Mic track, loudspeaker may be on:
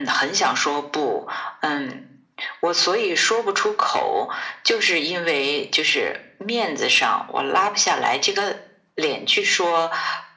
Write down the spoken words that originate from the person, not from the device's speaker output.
none

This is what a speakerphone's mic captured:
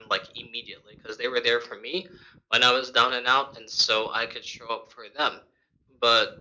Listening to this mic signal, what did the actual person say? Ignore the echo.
none

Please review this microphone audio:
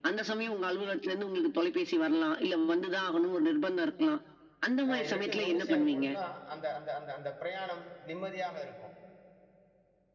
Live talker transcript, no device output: அ இது 2 ஒண்ணு சேரும்பொழுது தான் அந்த அந்த அந்த அந்த பிரயாணம் நிம்மதியாக இருக்கும்.

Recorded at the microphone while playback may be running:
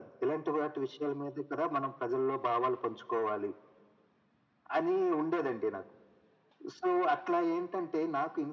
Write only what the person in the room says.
none

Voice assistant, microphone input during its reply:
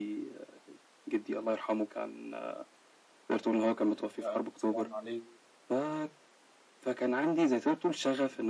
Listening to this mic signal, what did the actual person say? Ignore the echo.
على ألف سلامة عليك.

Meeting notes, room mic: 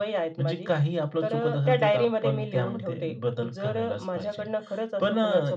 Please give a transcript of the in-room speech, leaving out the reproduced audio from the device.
none

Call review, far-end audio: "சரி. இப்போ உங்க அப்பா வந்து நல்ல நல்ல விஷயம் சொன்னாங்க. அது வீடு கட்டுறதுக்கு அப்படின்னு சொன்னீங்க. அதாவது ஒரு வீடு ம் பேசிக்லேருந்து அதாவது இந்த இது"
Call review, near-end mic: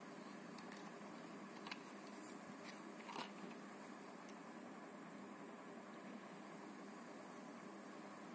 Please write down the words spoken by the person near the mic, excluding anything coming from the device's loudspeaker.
none

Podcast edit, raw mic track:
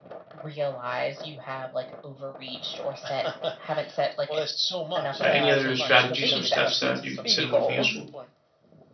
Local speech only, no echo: right? Any other strategies or steps that you consider would be useful?

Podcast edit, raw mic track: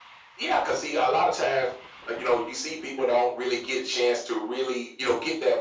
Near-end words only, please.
none

